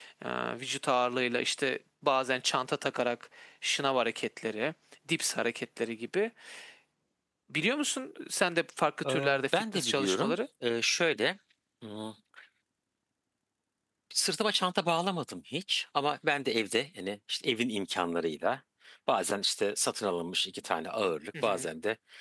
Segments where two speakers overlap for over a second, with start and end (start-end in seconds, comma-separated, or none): 9.0-10.4